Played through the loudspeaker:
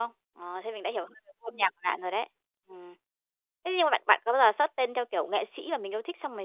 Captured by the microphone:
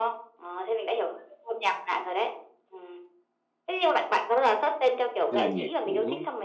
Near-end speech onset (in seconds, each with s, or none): 5.3 s